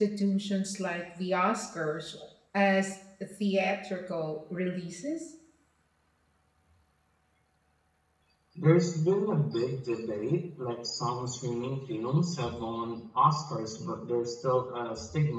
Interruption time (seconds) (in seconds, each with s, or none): none